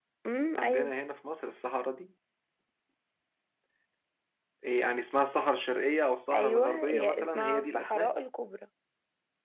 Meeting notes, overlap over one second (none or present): present